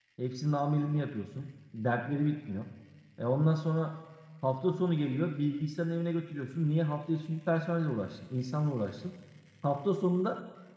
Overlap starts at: none

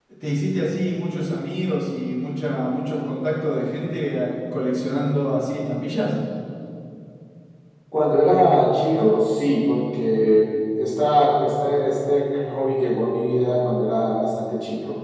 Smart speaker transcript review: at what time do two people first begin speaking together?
none

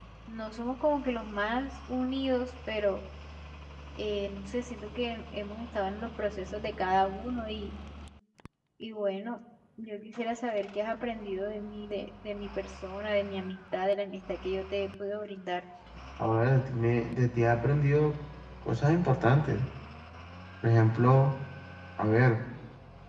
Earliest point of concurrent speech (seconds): none

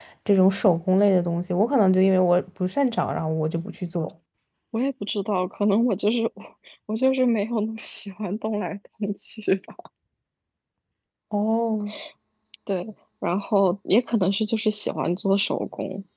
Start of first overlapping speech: none

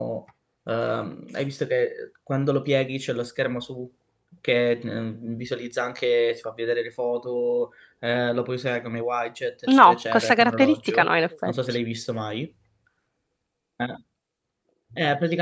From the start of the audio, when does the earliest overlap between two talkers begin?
9.7 s

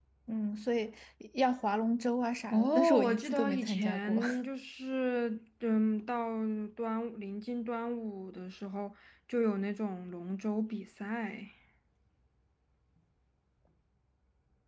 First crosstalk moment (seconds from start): 2.5 s

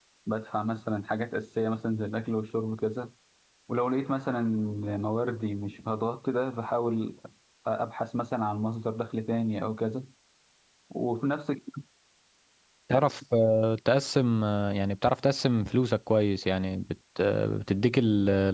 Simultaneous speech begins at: none

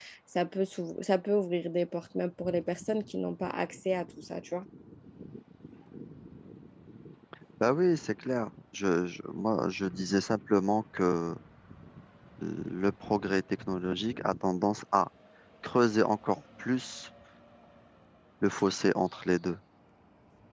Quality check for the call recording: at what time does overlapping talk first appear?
none

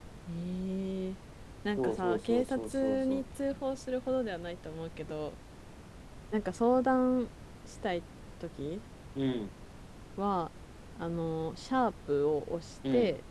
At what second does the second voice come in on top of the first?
1.8 s

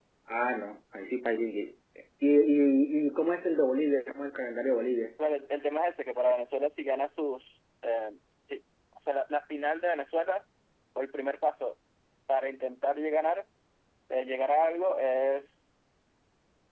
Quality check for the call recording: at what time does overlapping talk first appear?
none

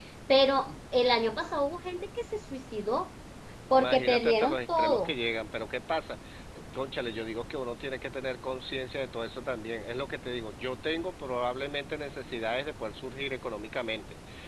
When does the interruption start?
3.8 s

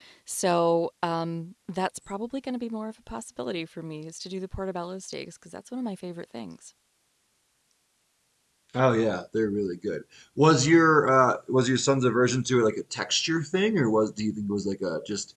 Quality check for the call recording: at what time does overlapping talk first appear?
none

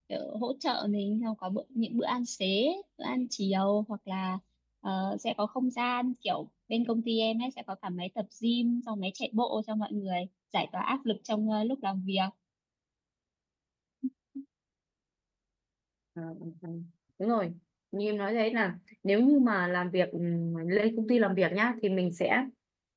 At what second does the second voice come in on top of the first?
none

